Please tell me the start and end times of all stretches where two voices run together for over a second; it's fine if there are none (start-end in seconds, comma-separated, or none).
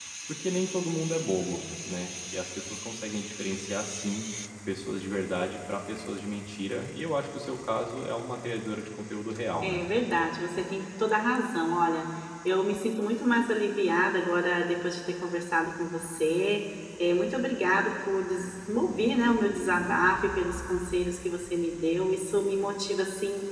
none